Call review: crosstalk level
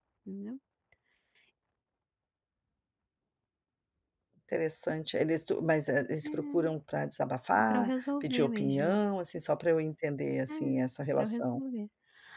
present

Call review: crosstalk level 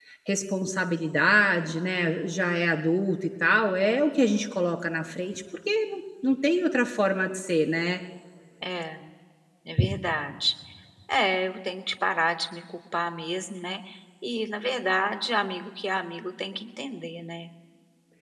none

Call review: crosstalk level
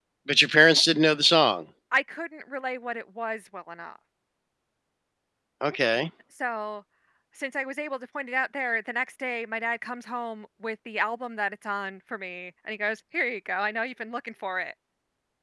none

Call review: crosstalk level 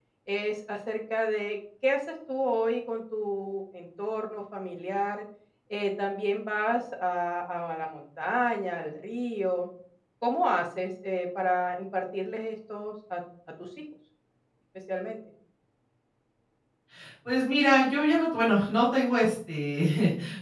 none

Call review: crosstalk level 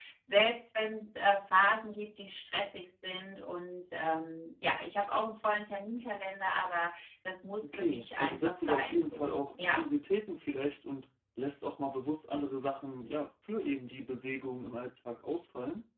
present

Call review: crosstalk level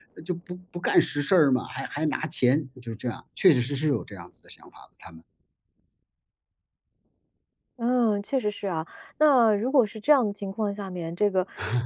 none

